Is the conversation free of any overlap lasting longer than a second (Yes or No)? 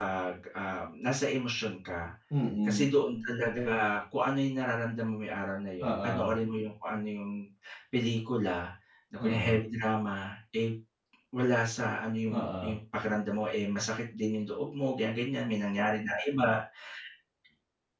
Yes